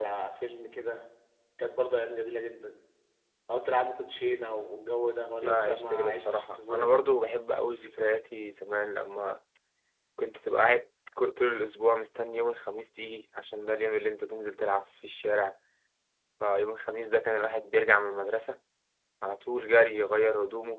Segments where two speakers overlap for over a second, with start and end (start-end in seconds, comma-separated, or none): 5.4-7.0